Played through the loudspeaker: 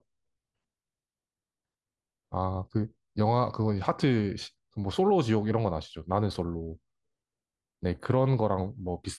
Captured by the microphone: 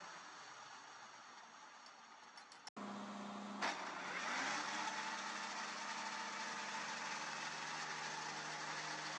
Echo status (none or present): none